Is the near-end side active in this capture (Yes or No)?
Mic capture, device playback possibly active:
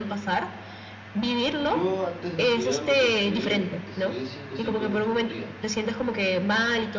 Yes